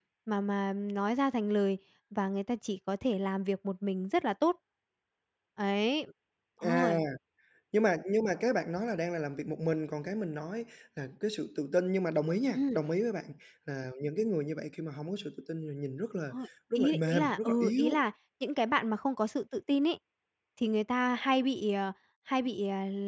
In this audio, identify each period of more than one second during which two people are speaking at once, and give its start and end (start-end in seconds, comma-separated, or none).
16.8-18.0